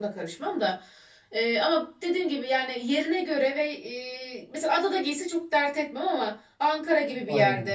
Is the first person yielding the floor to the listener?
No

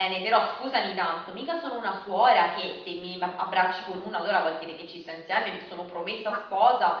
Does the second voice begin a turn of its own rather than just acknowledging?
No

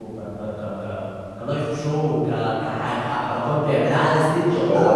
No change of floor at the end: No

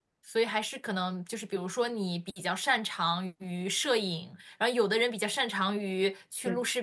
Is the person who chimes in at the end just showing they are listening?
Yes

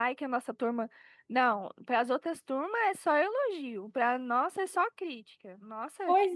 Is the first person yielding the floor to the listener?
Yes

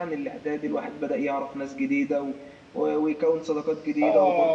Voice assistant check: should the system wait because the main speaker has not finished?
No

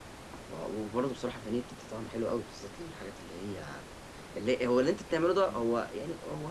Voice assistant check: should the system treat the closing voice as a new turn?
No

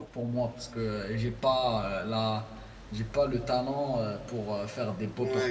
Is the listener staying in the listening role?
No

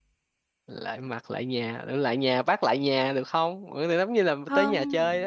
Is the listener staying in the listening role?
No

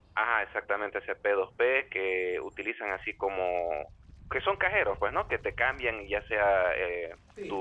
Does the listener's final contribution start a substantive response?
Yes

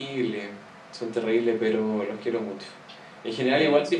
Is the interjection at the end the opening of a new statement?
No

